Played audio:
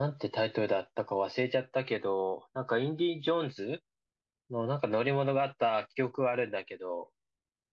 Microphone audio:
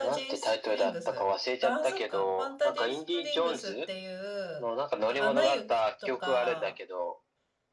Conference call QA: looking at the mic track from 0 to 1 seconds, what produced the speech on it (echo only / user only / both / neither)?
both